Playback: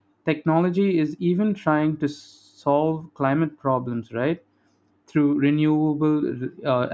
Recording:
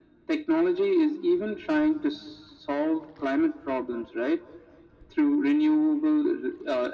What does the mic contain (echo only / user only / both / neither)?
echo only